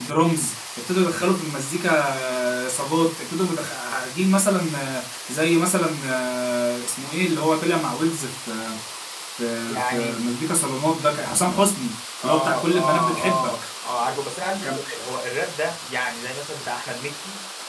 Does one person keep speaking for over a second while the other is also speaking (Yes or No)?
Yes